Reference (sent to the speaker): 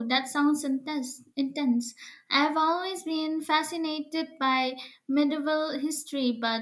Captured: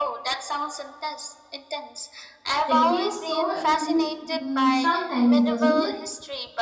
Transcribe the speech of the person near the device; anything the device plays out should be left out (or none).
It feels so immense mm, sometimes, doesn't it?